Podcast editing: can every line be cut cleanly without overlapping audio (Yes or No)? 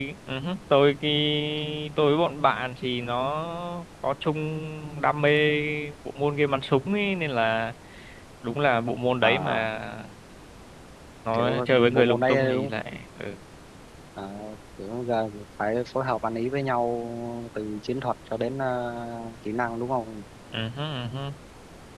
No